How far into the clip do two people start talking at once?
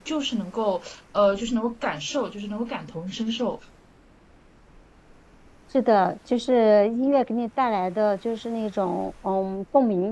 none

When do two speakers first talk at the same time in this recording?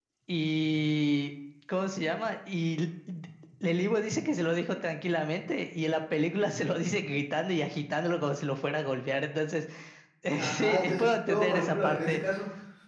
10.4 s

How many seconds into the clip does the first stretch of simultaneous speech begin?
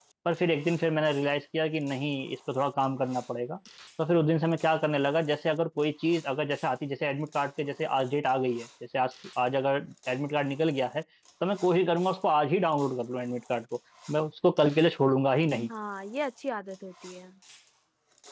none

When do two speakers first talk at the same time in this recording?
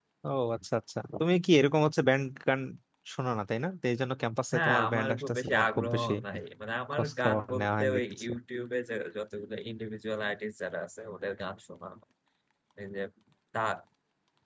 4.5 s

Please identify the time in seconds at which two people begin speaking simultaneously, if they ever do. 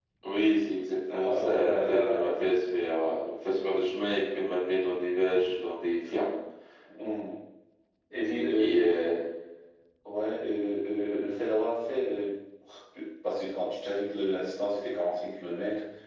1.1 s

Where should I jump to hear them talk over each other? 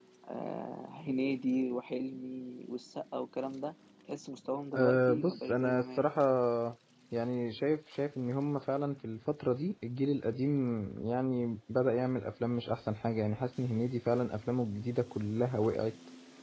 4.7 s

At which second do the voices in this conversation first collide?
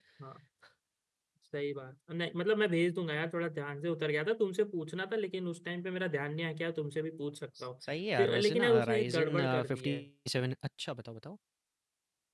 8.2 s

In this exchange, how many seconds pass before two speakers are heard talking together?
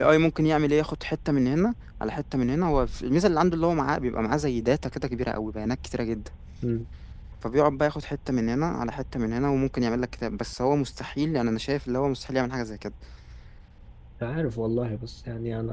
none

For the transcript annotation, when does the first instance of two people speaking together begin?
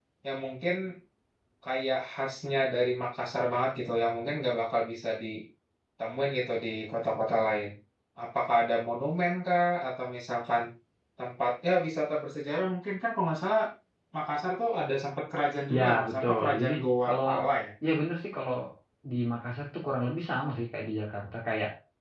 15.7 s

